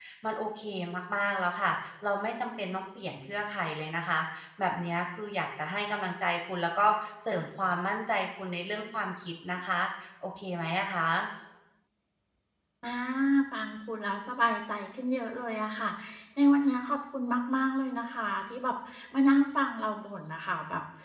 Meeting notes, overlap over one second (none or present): none